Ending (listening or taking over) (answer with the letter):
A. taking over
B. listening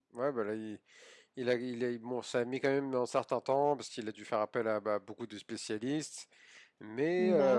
B